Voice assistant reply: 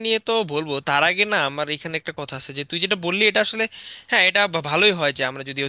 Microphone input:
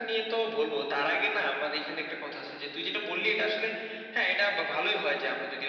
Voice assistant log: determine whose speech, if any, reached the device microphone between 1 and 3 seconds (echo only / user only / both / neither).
echo only